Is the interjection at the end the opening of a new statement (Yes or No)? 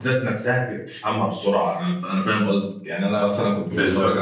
No